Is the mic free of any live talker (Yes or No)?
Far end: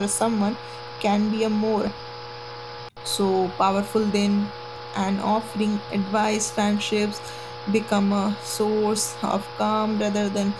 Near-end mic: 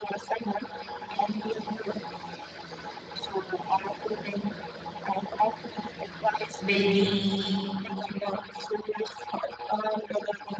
No